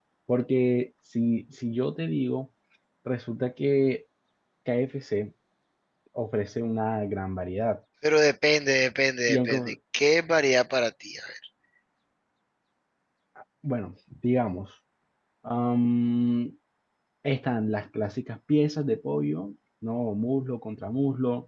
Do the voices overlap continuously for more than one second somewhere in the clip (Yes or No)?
No